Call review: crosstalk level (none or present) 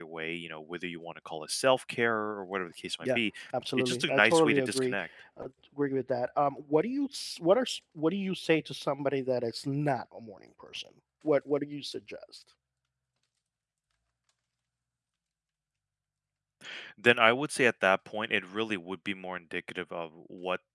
present